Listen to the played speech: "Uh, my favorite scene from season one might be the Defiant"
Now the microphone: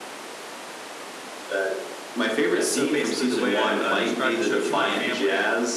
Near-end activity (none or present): present